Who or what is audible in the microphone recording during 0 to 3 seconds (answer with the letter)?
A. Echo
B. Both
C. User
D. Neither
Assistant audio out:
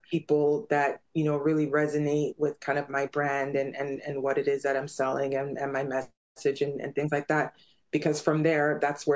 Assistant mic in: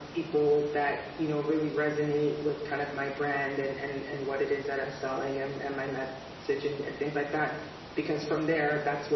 A